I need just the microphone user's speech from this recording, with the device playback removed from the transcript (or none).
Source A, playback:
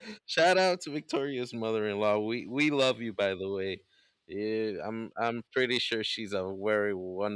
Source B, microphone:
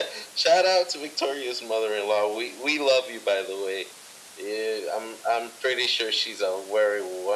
none